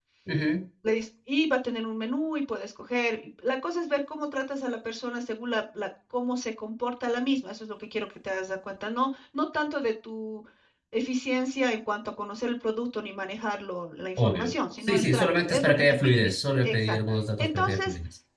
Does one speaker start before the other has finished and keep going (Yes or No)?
Yes